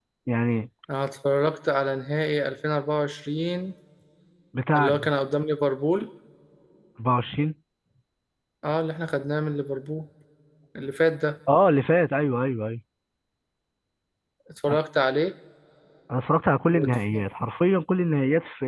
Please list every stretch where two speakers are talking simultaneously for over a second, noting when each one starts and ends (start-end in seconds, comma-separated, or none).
none